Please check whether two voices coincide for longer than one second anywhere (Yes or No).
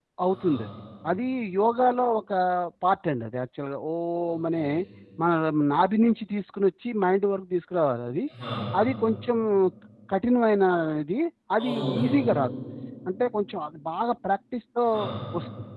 No